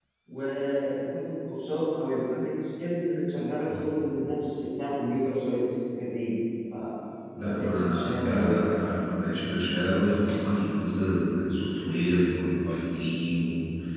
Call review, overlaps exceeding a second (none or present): present